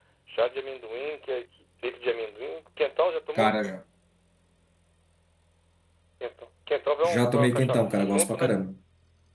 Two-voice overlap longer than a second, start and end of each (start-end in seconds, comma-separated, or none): 7.0-8.5